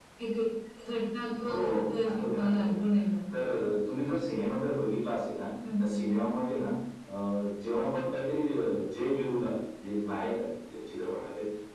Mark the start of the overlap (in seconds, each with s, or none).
1.4 s